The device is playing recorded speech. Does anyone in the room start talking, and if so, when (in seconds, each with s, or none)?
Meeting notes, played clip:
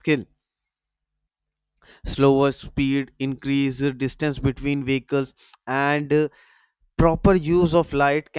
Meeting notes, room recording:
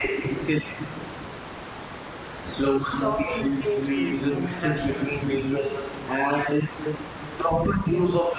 2.9 s